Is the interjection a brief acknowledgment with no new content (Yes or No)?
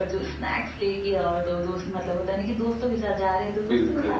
Yes